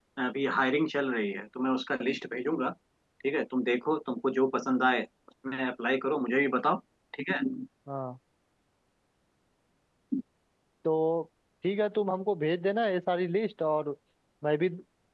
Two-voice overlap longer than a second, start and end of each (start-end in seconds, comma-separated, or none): none